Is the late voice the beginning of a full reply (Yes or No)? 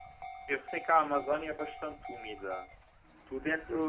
No